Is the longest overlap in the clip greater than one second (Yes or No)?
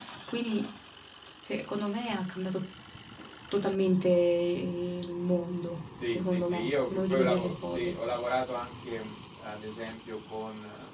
Yes